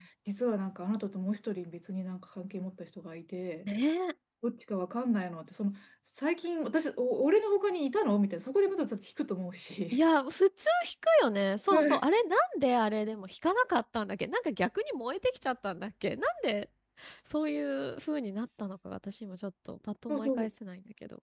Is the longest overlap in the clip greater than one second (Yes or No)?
No